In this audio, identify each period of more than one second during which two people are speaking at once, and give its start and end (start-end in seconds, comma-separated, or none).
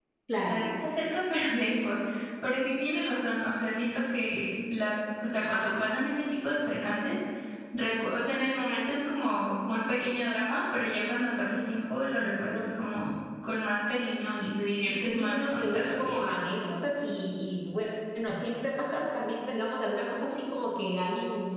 15.0-16.4